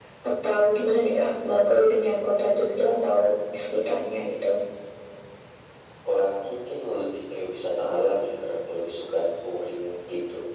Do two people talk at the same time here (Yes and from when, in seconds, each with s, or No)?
No